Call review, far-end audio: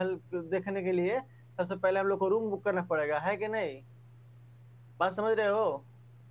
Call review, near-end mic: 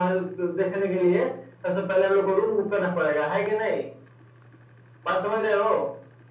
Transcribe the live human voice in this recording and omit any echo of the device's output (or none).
none